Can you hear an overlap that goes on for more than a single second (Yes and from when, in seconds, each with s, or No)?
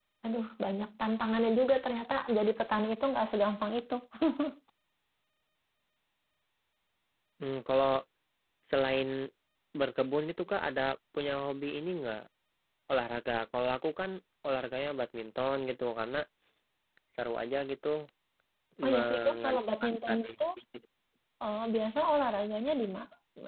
Yes, from 18.9 s